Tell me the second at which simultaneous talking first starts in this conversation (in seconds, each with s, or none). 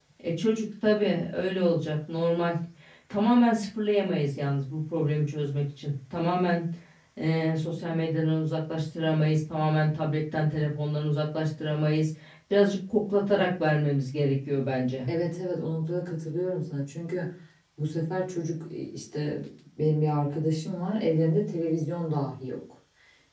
none